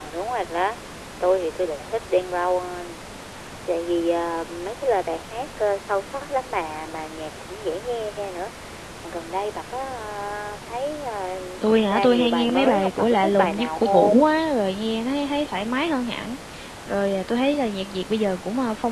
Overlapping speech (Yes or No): Yes